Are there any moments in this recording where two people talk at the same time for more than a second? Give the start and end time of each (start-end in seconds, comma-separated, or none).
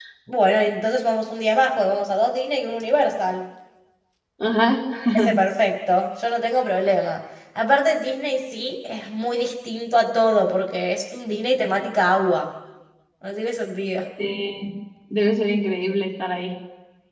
none